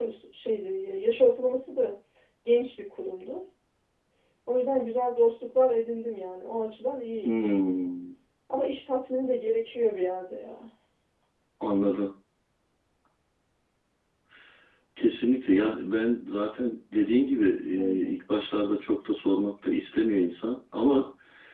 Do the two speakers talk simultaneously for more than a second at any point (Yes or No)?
No